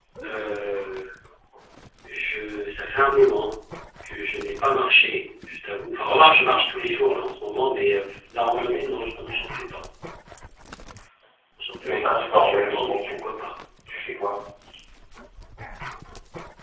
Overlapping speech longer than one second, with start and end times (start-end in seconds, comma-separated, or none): 11.8-13.3